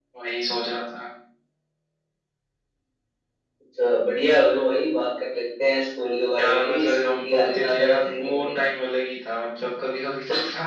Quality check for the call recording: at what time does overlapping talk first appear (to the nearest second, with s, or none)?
6 s